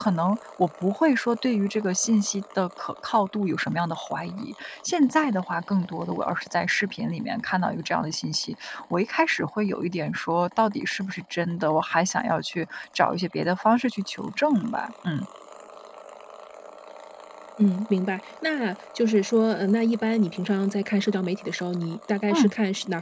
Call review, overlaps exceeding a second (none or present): none